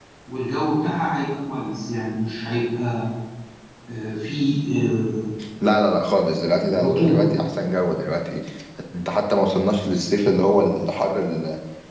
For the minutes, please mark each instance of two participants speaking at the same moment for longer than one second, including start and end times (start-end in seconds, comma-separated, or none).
none